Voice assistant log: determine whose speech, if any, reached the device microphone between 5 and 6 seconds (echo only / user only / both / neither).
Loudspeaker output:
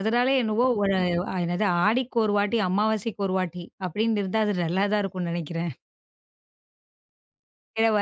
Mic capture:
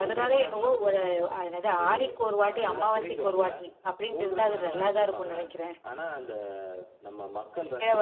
both